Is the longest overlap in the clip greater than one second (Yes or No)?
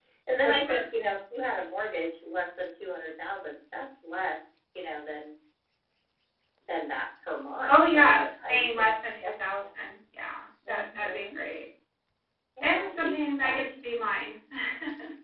Yes